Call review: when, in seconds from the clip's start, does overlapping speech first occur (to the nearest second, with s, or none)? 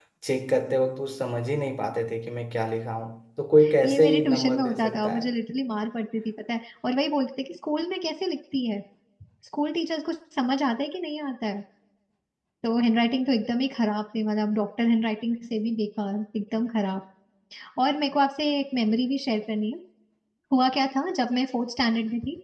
4 s